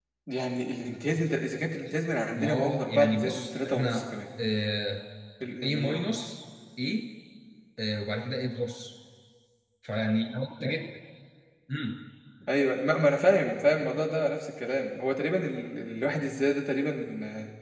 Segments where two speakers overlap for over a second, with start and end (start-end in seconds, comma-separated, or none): 2.4-4.1